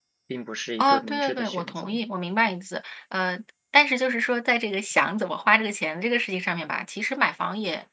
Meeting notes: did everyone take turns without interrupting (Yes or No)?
No